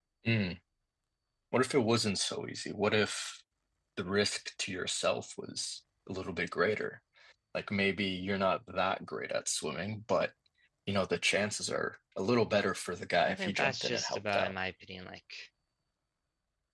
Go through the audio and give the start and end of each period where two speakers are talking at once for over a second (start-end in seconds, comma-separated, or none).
13.2-14.5